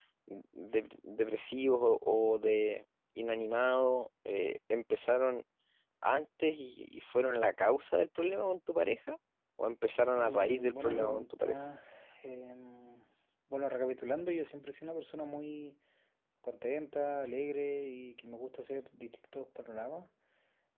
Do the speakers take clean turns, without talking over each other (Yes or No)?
No